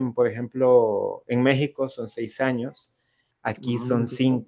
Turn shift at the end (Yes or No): No